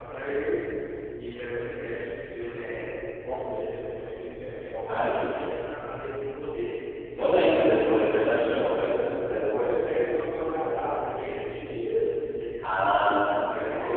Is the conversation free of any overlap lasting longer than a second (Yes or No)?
No